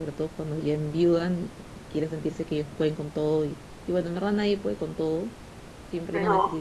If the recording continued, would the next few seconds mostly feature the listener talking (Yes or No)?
No